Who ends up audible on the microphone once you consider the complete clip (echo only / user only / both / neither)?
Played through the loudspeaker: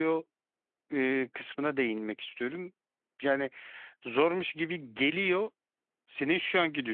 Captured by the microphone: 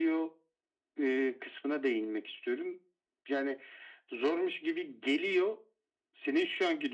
echo only